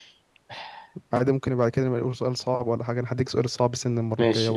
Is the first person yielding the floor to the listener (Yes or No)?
Yes